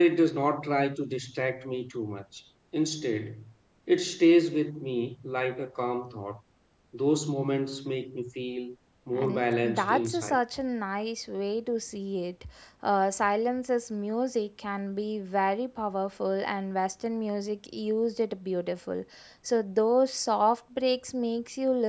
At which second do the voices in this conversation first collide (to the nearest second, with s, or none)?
9 s